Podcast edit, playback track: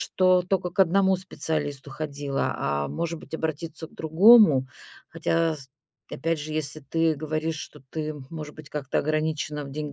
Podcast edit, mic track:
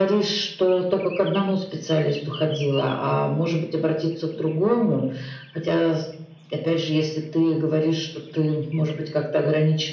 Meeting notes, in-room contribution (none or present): none